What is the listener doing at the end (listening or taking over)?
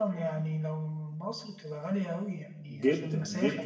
taking over